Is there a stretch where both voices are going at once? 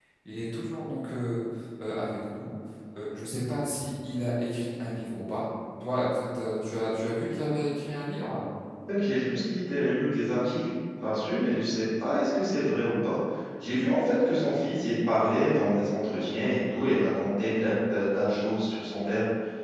No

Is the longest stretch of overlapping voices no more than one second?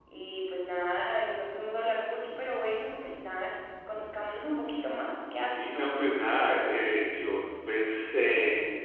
Yes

